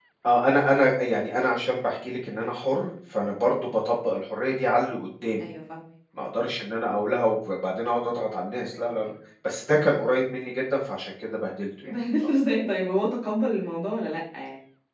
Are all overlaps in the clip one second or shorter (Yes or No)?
Yes